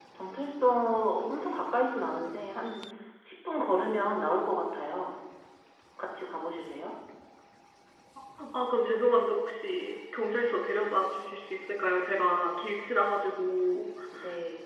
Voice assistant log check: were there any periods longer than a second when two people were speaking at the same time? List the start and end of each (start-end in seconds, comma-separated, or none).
none